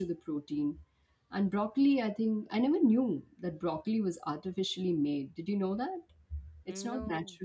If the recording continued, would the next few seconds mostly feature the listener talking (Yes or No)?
No